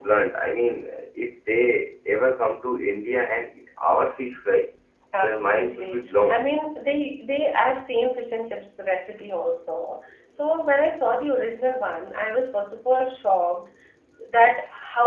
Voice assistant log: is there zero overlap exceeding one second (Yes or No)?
No